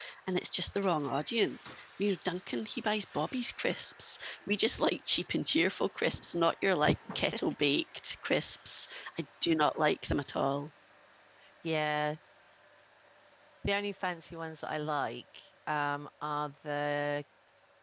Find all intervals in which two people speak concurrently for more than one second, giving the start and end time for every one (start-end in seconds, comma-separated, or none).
none